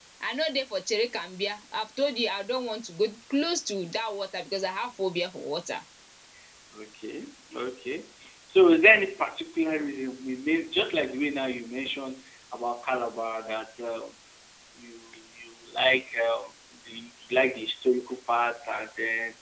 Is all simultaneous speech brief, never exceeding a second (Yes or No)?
Yes